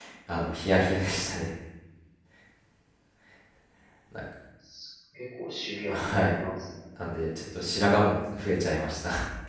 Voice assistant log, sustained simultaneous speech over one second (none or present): none